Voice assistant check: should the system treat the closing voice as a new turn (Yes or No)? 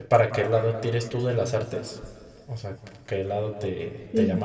No